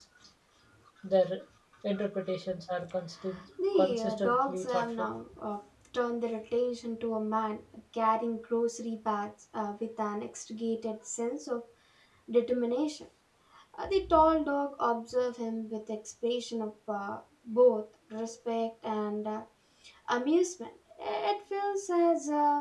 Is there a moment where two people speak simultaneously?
Yes, from 3.6 s

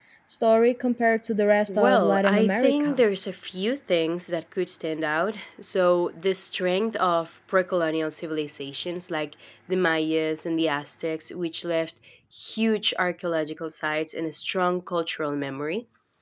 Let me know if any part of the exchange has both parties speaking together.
Yes, from 1.7 s

